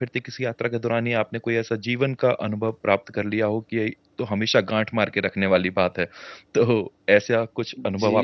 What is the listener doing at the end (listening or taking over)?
taking over